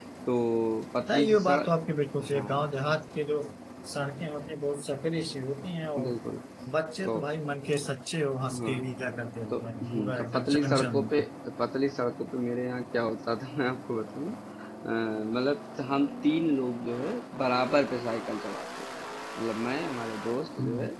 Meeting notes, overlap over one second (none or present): present